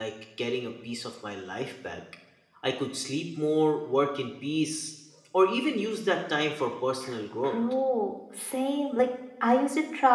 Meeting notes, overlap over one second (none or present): none